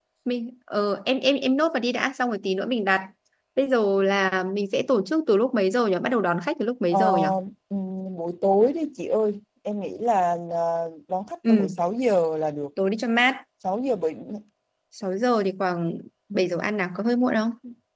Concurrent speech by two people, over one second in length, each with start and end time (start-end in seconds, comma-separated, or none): none